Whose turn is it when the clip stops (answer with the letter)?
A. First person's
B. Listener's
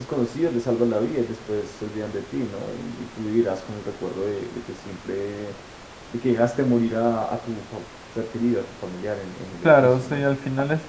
B